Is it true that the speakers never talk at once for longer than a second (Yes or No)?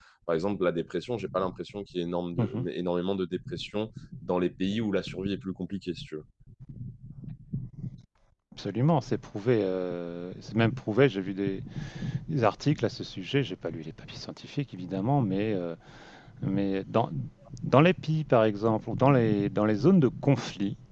Yes